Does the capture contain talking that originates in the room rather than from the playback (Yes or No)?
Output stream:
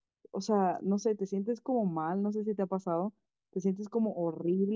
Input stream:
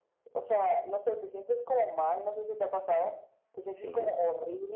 Yes